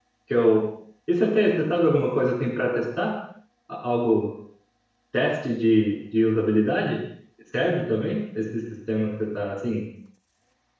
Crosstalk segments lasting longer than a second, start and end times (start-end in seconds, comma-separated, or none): none